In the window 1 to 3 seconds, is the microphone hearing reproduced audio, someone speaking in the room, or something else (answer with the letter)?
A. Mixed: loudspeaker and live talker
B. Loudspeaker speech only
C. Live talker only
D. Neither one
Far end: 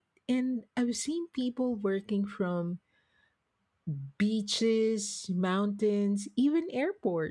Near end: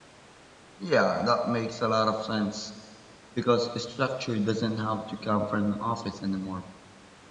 C